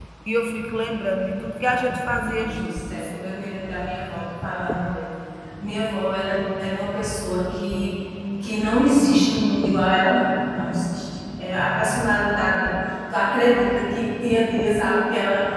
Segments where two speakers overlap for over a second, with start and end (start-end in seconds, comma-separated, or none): 1.6-3.1